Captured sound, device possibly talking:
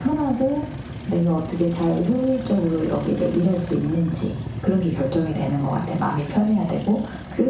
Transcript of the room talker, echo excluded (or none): none